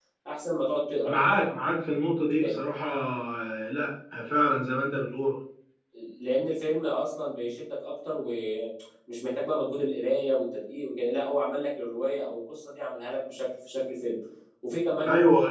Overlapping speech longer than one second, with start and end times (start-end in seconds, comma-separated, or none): none